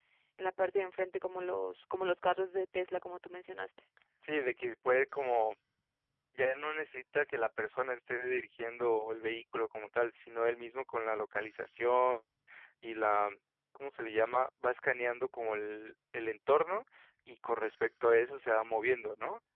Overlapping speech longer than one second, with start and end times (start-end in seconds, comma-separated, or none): none